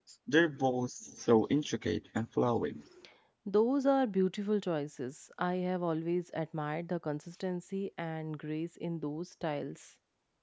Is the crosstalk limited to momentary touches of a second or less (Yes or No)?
Yes